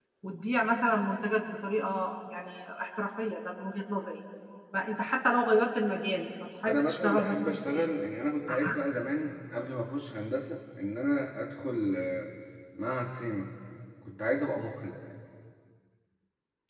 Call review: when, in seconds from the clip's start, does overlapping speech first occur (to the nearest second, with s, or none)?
7 s